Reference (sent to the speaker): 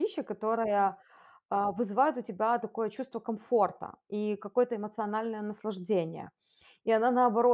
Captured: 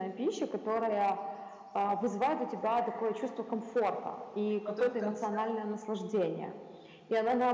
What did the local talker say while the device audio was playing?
И потом в конце

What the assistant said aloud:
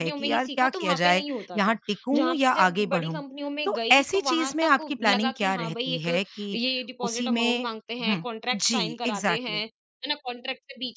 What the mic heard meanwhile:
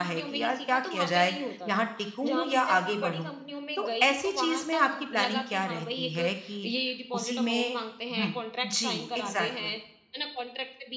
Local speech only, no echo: none

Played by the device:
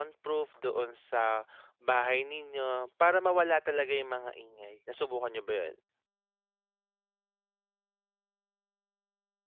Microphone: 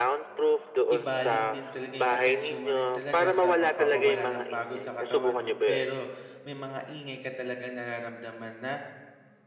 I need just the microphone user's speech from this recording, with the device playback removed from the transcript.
ibaling din talaga 'yung atensyon mo rin talaga sa pagpapawala ng pagod sa katawan mo, pero may mga ingay ka talagang nararamdaman na

